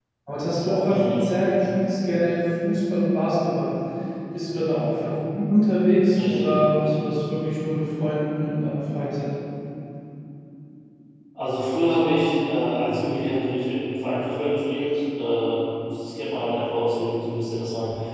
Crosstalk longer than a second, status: none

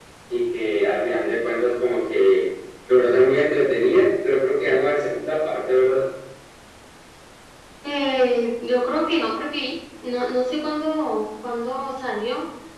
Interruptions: none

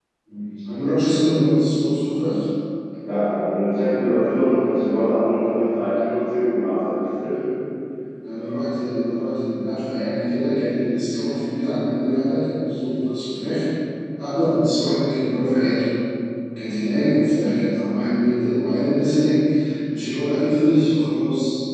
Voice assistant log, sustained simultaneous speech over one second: none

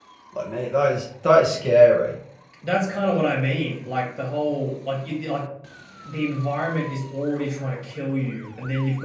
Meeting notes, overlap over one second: none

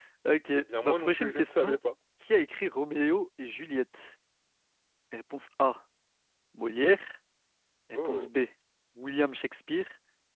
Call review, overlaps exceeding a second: present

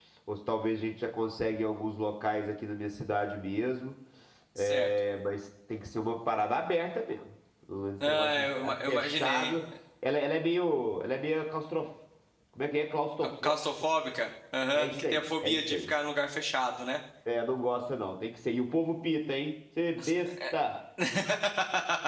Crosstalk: present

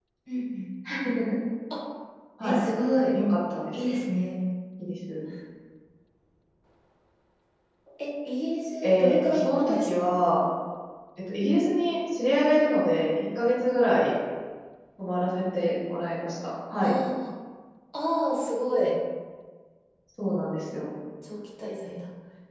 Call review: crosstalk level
present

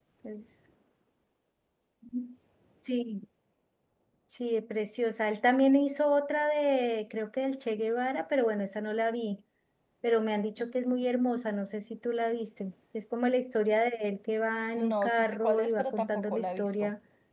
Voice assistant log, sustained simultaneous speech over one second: present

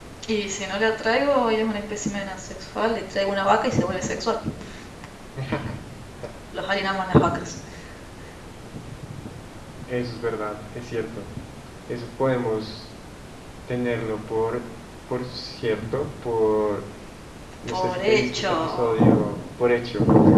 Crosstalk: present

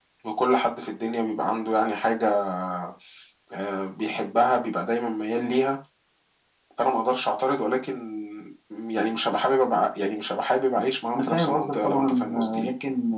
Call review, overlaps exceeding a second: present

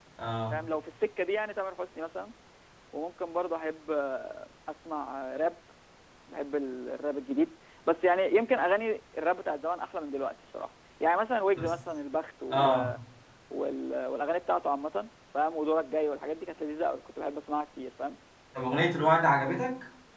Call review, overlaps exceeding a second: none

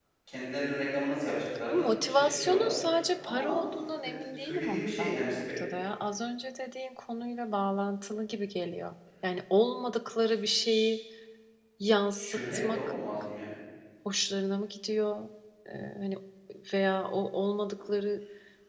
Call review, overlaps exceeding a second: present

